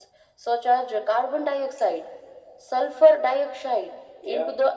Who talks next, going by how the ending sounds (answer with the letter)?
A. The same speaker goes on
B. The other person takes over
A